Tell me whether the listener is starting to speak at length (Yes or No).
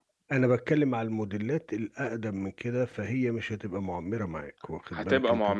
Yes